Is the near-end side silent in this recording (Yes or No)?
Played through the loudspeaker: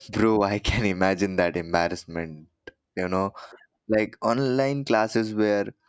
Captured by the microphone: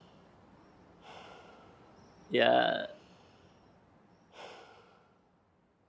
No